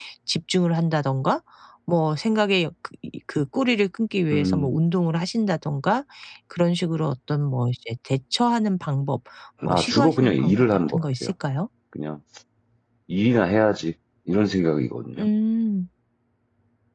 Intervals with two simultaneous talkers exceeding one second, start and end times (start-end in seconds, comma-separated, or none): 9.7-11.3